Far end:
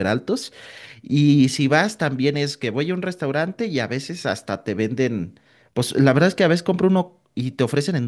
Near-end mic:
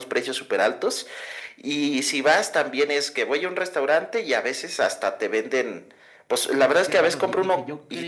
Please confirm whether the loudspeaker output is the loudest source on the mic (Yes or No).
Yes